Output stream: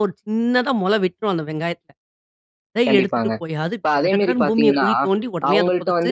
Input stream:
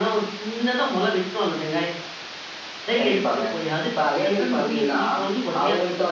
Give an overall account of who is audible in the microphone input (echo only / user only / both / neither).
echo only